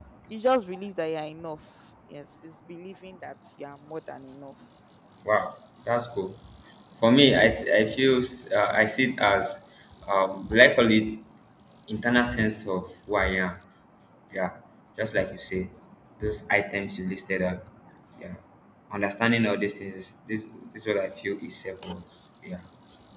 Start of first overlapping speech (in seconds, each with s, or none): none